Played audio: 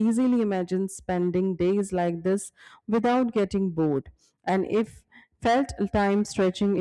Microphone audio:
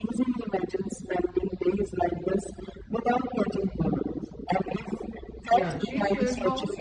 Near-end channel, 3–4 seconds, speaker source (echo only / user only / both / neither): echo only